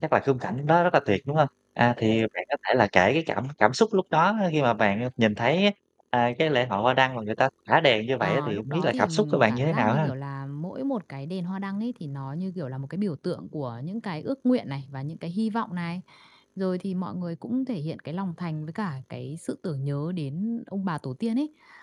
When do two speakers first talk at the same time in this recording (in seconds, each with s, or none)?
8.2 s